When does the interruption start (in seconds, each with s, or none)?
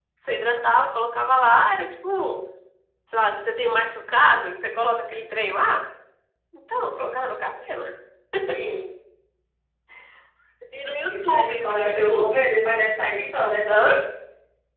11.1 s